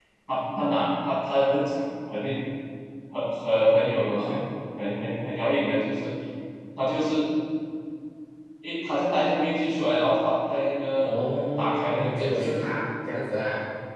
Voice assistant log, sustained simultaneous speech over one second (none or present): present